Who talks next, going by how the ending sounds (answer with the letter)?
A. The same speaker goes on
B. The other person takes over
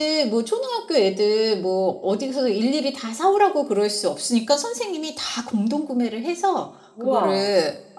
A